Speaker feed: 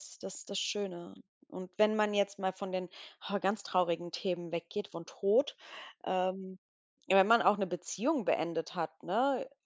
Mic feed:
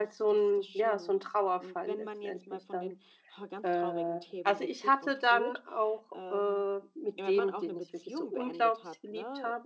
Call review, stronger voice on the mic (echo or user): user